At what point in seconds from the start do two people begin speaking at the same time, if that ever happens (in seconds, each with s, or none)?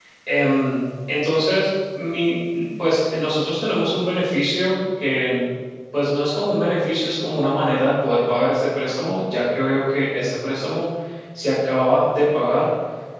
none